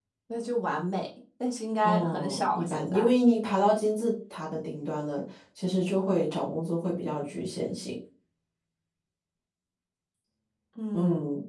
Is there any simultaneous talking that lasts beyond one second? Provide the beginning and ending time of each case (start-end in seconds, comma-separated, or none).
1.8-3.1